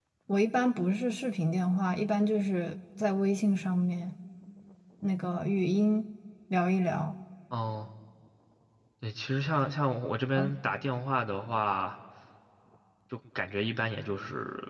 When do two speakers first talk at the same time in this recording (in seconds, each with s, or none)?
none